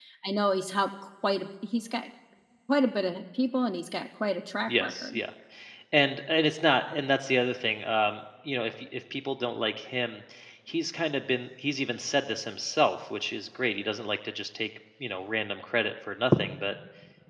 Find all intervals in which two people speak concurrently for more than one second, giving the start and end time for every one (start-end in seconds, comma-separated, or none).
none